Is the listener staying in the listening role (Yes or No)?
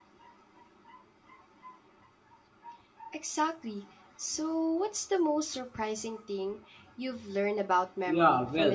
No